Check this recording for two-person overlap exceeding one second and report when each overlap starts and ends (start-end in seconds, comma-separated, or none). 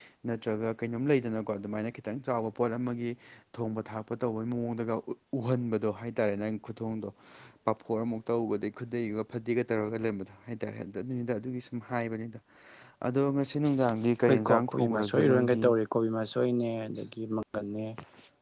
14.2-15.6